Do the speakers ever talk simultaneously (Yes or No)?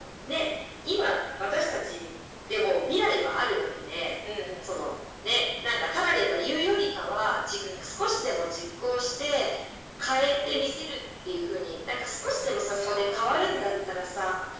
Yes